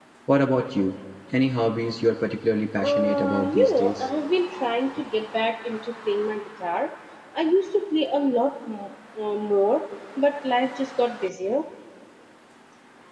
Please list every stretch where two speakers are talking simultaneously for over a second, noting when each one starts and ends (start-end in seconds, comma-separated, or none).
2.8-4.1